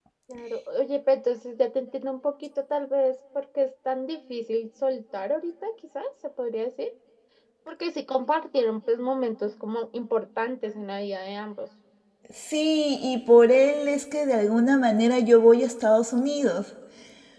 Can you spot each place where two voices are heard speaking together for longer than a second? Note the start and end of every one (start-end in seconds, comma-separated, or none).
none